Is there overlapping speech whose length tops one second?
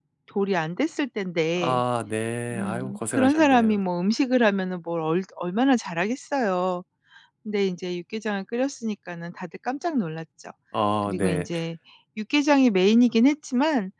Yes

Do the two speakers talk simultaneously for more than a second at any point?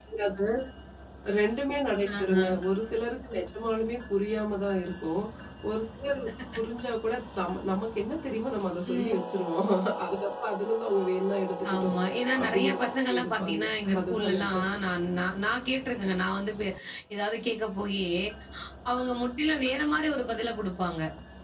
Yes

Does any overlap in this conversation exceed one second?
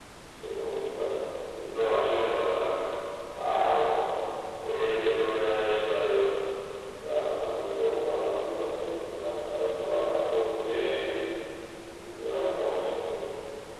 No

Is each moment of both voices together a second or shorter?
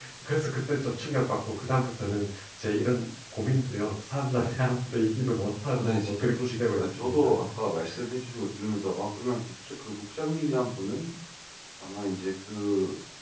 No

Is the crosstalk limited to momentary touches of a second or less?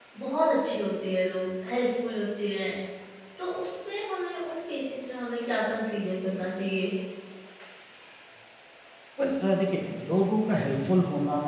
Yes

